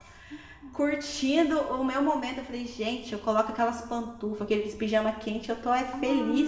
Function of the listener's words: taking over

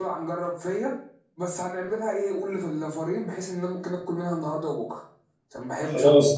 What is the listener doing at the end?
taking over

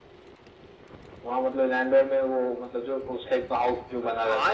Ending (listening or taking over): taking over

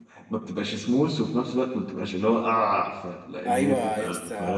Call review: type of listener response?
taking over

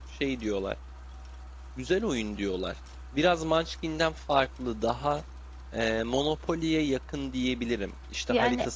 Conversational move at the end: listening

